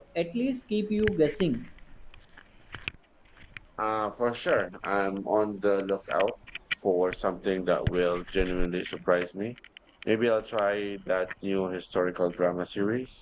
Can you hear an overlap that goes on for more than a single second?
No

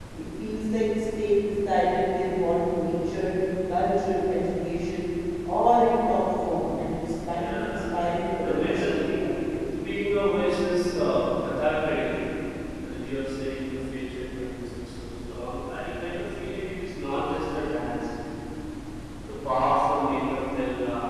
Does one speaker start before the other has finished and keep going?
Yes, from 7.2 s

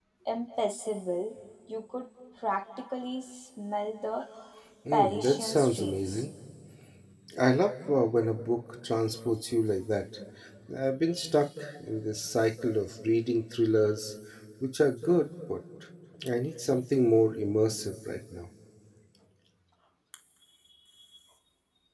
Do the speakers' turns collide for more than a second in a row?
Yes, from 4.9 s

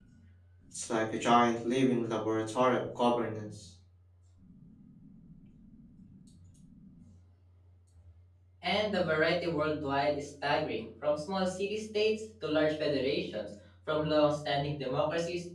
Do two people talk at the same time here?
No

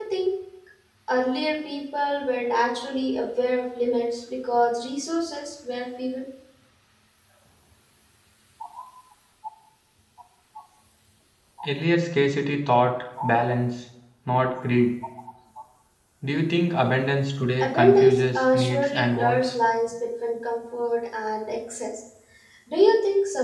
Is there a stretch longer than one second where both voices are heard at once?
Yes, from 17.6 s

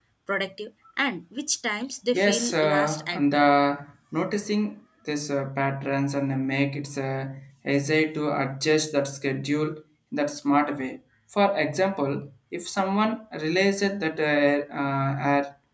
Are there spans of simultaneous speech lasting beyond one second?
Yes, from 2.1 s

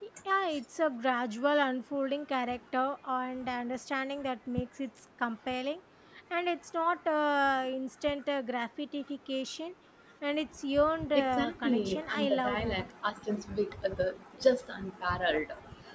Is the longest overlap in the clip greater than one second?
Yes, from 11.1 s

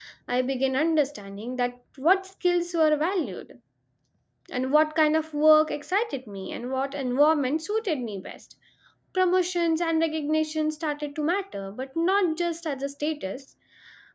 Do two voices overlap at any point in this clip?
No

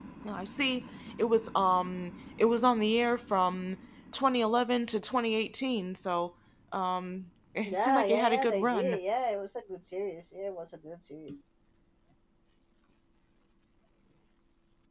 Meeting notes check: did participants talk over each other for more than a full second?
Yes, from 7.6 s

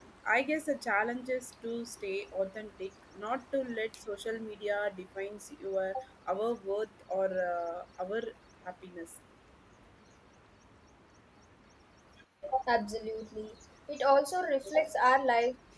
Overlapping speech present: No

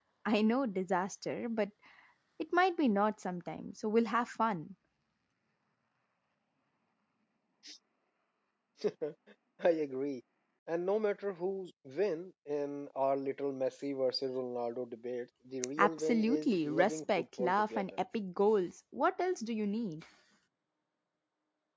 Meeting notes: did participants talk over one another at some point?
Yes, from 15.8 s

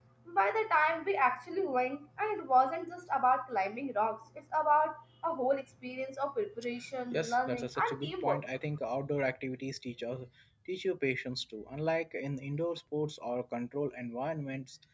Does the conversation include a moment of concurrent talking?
Yes, from 7.1 s

